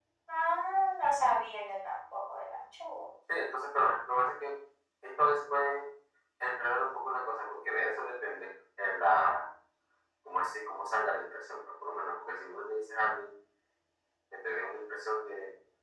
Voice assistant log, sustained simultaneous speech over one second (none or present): none